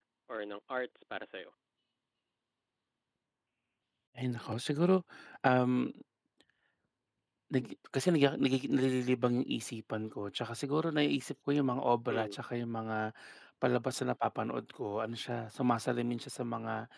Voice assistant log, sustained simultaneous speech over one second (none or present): none